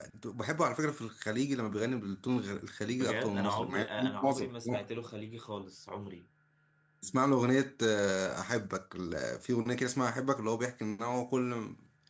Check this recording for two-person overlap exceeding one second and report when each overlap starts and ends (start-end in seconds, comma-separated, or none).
3.0-4.9